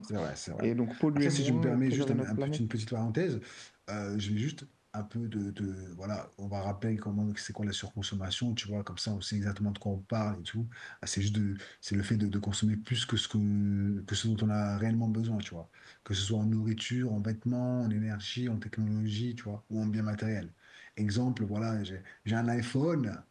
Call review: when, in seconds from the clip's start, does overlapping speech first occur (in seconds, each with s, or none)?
1.2 s